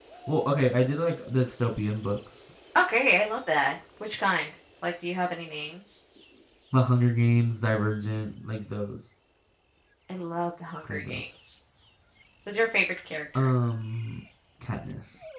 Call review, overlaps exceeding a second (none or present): none